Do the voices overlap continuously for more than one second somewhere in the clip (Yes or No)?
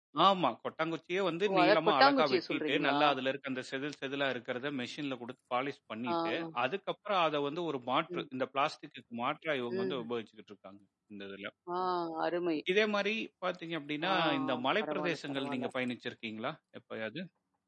Yes